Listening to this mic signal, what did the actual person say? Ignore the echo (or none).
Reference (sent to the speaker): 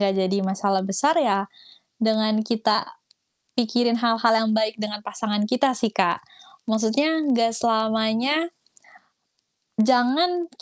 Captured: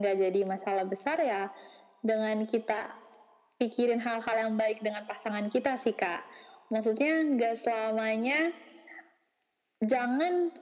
none